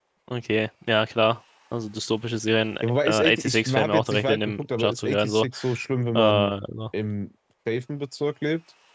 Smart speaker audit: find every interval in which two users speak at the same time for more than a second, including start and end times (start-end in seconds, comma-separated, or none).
3.0-5.4